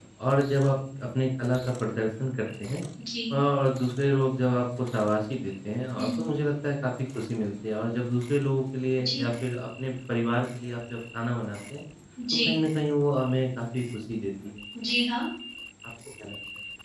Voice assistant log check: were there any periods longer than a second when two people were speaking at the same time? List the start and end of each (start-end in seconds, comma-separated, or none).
none